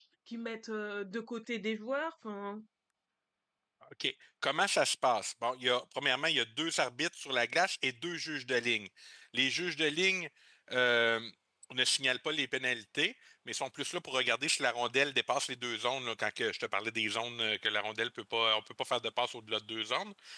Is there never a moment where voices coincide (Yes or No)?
Yes